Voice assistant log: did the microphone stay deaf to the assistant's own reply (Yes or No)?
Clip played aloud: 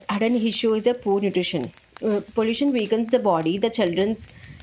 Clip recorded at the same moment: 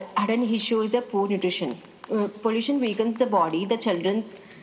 No